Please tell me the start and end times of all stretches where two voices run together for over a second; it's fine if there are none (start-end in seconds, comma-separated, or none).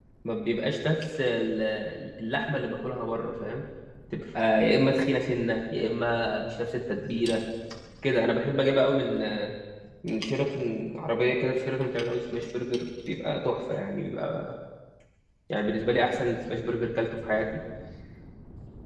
none